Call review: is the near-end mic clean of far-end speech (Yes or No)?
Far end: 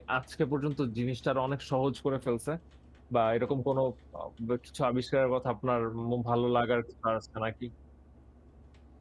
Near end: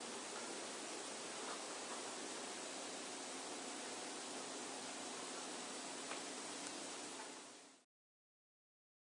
Yes